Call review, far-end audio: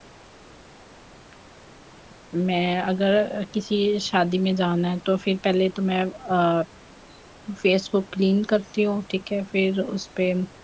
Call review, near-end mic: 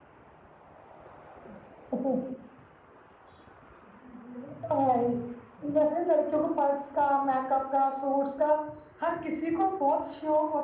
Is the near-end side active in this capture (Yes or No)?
Yes